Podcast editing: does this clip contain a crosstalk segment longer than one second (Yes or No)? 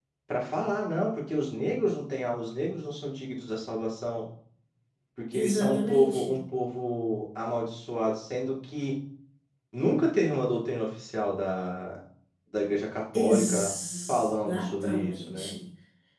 Yes